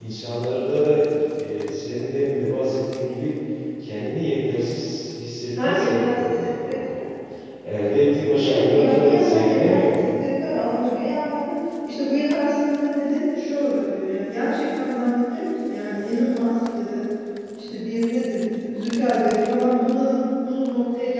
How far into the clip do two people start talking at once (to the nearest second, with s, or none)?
6 s